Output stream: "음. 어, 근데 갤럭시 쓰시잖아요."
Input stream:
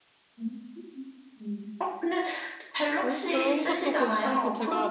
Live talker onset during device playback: 3.0 s

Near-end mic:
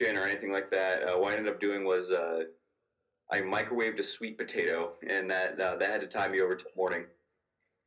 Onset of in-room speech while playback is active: none

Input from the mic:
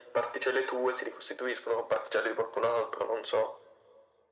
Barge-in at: none

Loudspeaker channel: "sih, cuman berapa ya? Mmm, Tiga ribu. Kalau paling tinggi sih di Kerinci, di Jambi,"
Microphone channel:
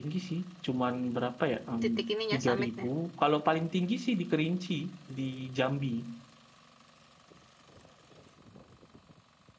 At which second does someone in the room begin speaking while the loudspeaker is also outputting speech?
1.8 s

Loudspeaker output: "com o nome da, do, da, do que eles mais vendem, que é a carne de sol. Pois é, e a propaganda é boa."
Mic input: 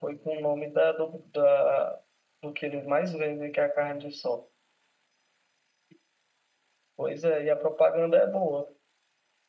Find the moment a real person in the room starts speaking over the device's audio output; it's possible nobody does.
none

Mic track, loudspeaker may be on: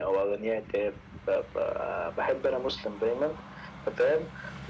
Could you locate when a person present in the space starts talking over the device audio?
none

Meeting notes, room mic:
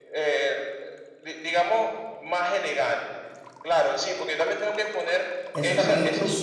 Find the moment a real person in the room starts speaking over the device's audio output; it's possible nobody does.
5.5 s

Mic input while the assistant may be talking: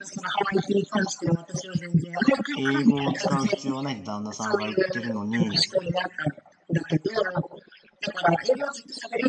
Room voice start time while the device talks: 2.5 s

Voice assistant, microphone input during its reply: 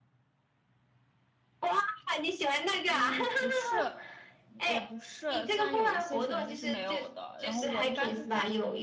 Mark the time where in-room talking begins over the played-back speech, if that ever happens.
2.8 s

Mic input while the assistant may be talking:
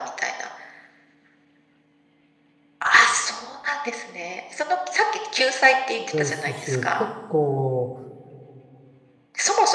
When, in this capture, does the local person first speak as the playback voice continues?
5.9 s

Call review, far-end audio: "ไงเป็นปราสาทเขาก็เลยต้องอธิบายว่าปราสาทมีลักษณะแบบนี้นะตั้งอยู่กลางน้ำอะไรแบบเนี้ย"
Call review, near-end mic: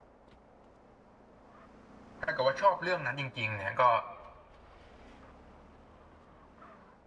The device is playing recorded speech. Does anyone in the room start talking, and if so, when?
2.2 s

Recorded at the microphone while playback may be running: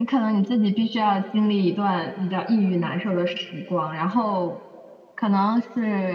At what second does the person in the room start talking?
none

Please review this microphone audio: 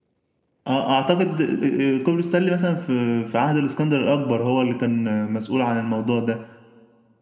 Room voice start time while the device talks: 0.7 s

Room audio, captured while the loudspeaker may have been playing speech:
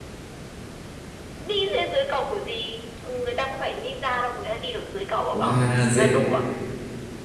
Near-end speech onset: 5.3 s

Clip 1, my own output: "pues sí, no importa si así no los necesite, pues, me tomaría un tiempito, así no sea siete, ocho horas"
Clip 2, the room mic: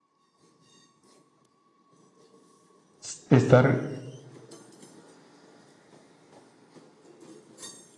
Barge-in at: 3.0 s

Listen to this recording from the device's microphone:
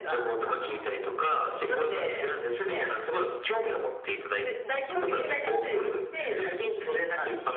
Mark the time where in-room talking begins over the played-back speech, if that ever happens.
none

